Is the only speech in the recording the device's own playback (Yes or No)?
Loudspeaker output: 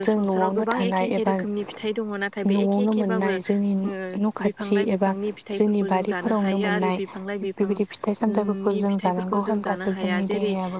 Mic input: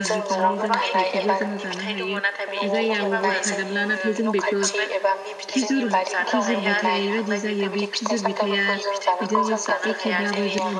No